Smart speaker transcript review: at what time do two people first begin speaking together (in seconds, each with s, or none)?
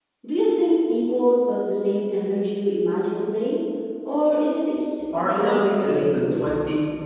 5.1 s